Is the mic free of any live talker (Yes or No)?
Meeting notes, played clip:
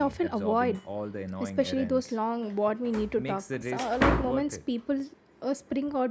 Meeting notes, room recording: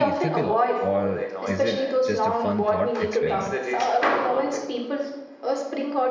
No